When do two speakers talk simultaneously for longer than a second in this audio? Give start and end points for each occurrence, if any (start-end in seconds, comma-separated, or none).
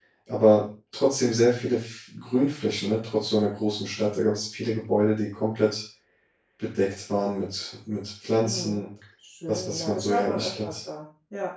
9.5-10.7